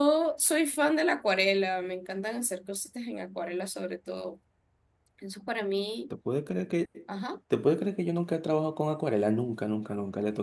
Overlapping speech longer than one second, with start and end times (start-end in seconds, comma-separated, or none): none